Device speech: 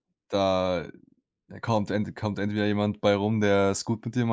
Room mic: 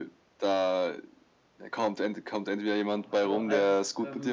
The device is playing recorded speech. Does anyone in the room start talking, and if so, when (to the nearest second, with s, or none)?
3 s